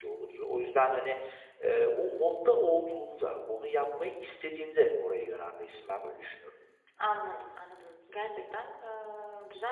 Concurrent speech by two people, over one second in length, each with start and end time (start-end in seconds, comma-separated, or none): none